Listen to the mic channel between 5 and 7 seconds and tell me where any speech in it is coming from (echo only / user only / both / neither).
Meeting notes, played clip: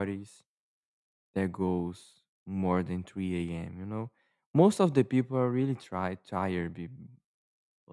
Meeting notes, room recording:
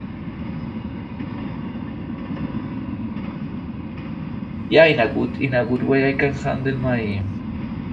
user only